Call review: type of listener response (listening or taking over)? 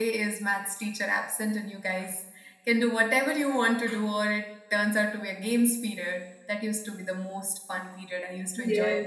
taking over